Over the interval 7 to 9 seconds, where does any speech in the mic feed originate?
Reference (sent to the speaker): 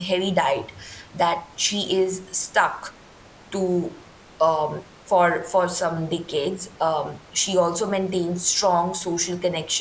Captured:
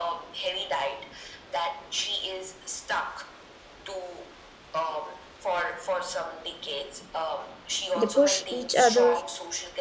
both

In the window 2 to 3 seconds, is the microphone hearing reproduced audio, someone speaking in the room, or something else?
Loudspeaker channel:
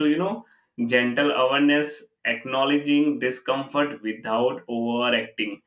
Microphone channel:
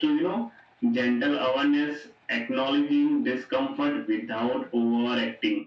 echo only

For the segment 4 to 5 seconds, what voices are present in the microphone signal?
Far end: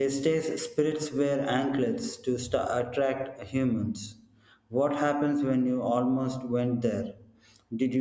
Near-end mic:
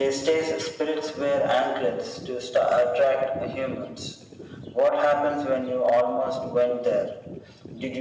echo only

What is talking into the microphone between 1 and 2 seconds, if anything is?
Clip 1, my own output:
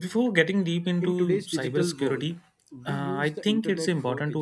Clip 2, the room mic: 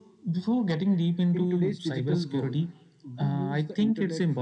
echo only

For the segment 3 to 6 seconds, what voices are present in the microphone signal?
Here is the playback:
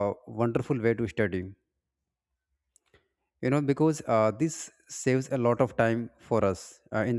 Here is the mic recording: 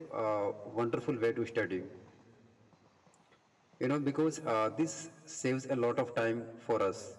echo only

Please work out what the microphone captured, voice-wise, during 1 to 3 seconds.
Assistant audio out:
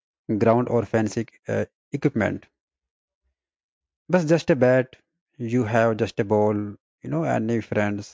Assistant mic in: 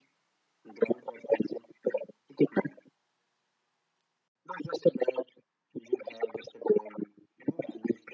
echo only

